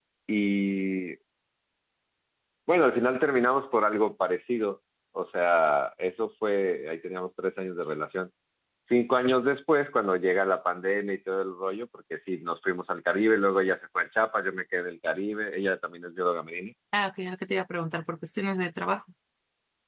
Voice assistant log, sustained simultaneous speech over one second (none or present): none